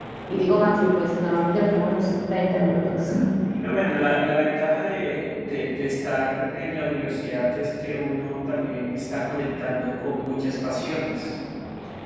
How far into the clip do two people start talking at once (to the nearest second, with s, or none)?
none